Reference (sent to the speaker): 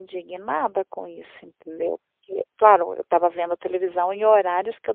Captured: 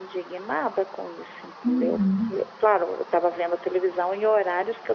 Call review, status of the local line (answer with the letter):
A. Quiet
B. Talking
B